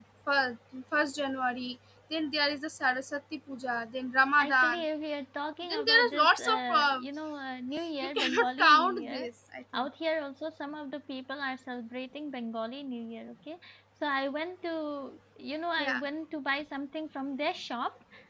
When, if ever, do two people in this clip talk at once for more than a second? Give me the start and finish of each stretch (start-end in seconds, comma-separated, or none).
5.6-7.0, 8.0-9.3